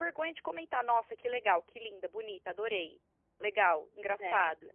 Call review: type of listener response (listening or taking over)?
listening